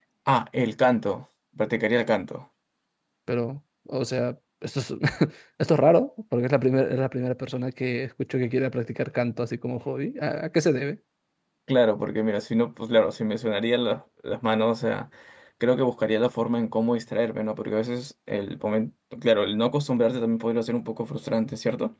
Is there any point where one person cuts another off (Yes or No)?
No